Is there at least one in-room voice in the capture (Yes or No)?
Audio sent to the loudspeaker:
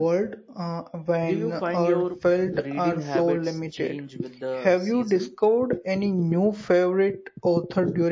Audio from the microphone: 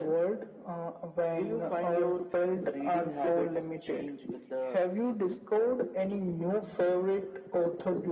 No